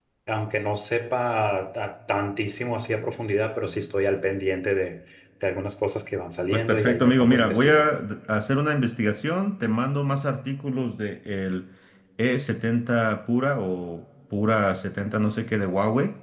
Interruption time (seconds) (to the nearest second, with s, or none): 7 s